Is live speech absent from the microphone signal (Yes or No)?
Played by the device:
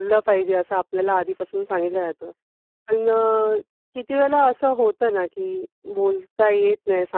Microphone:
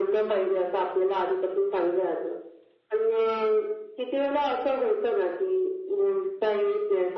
Yes